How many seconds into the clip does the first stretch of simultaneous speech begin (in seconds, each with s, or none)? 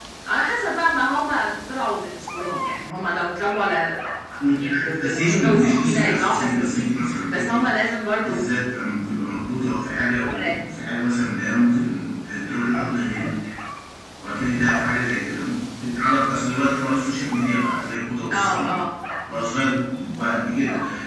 4.5 s